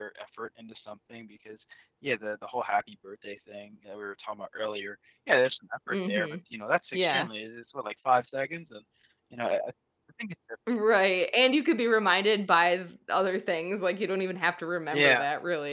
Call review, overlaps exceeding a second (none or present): none